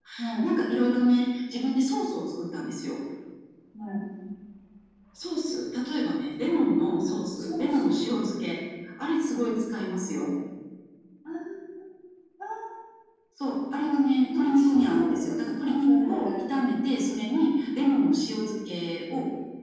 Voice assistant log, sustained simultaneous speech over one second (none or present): present